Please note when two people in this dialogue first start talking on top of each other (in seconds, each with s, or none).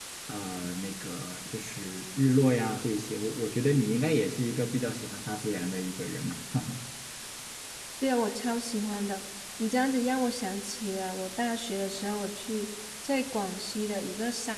none